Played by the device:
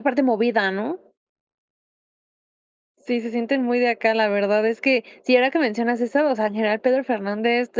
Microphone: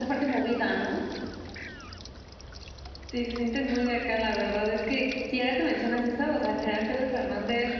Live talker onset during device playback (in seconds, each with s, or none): none